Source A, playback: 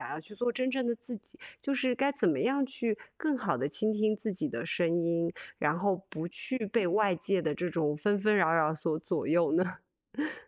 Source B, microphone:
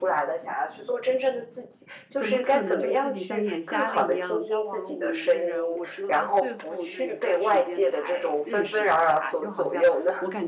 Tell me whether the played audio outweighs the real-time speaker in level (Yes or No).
Yes